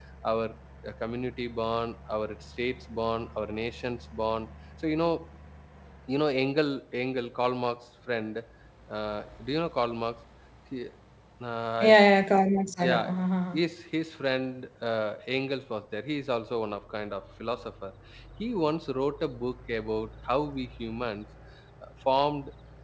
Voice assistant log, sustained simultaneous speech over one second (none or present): none